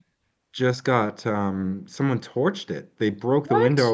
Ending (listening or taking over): listening